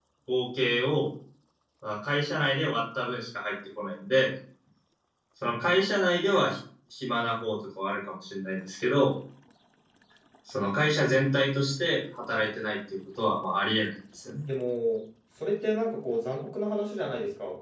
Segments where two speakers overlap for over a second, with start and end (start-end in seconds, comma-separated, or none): none